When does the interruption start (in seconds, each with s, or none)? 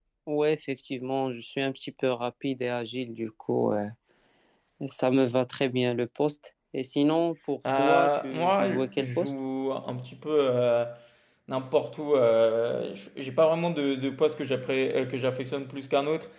7.7 s